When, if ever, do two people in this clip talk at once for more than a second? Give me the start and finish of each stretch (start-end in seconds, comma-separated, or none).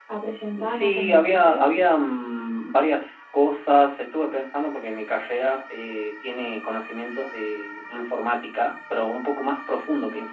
0.7-1.9